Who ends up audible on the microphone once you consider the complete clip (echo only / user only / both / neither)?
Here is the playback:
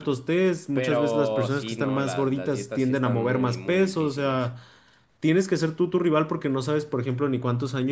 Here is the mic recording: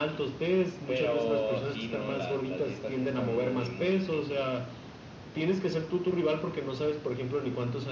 echo only